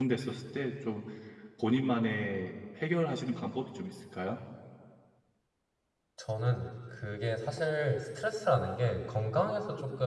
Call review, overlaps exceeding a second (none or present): none